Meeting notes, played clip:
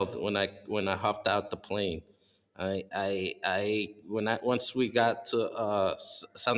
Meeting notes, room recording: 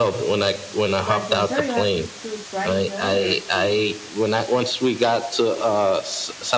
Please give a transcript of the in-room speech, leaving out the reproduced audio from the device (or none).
But for sure, you have to, to try the others too.